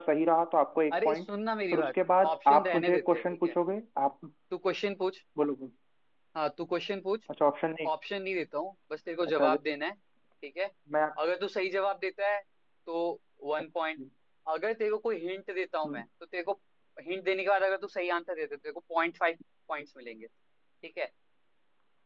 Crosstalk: present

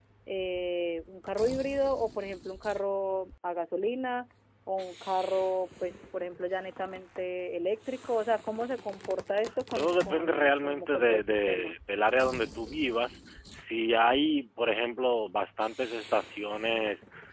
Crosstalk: present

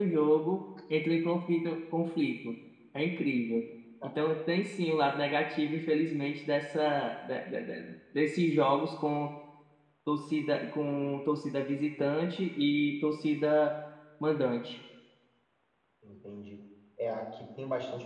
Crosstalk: none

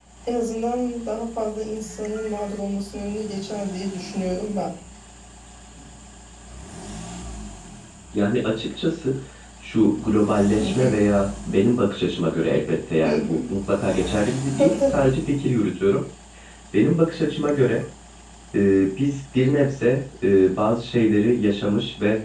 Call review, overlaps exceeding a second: none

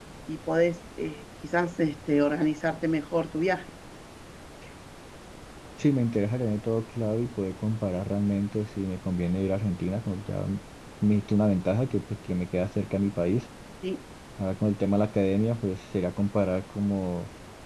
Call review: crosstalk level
none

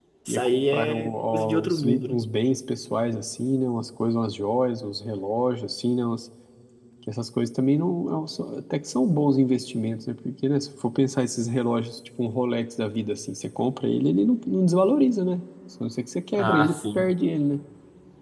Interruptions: present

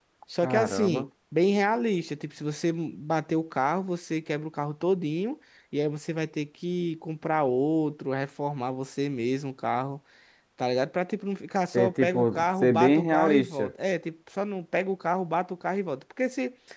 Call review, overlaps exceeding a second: present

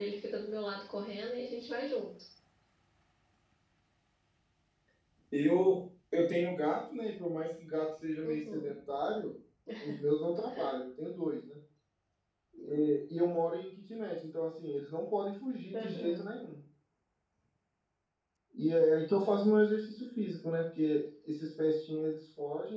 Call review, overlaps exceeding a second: none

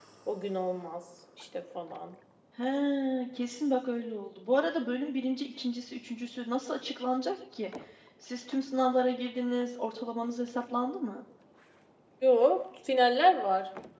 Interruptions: none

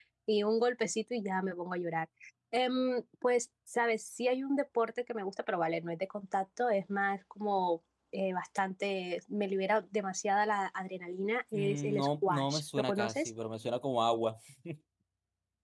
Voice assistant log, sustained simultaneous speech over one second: present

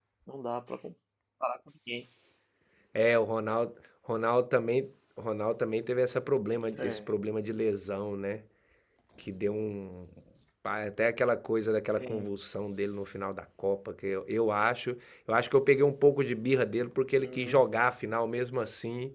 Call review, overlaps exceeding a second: none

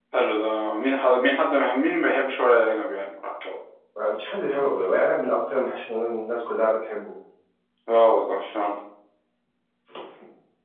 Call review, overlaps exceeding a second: none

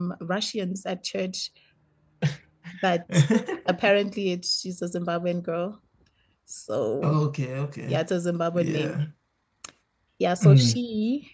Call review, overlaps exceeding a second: none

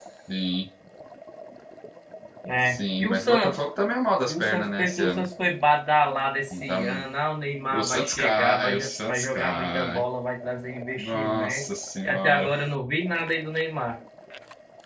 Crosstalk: present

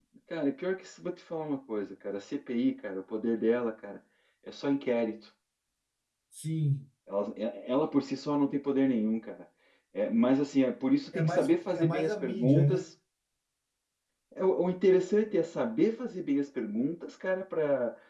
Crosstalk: present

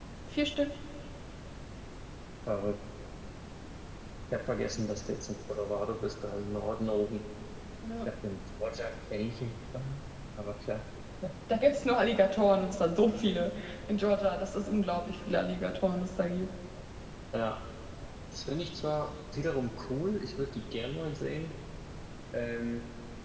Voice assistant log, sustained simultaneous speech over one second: none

